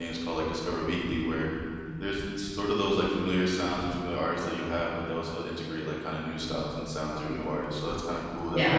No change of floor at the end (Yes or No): No